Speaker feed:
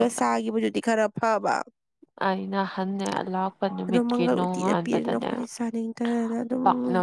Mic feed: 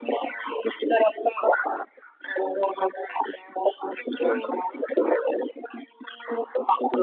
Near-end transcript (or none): ꯑ